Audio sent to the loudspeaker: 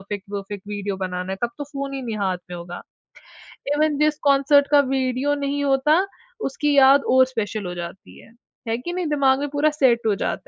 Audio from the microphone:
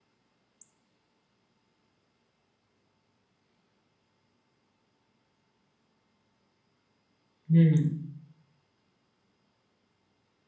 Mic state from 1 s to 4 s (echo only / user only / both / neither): neither